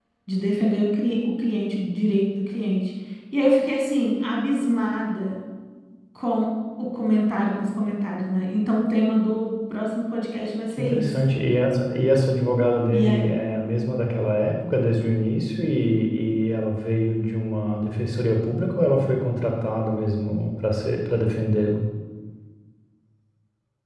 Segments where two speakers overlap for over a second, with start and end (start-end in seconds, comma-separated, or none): none